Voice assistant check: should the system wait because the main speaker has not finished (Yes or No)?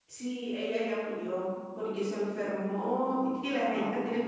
Yes